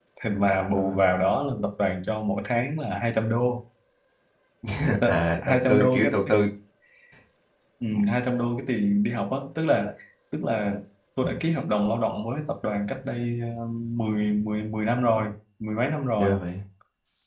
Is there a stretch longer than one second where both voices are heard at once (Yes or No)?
Yes